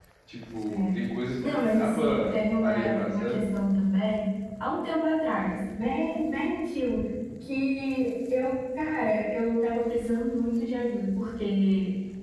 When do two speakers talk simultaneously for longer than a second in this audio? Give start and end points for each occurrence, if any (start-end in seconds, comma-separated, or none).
1.4-3.4